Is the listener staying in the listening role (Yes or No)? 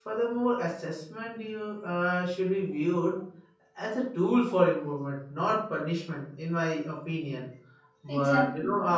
Yes